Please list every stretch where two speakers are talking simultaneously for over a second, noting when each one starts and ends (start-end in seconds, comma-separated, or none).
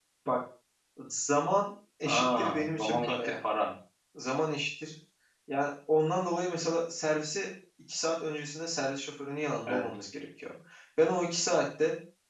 2.0-3.3